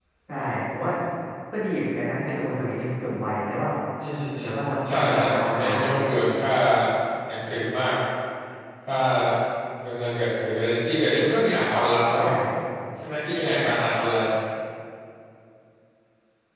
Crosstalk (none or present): present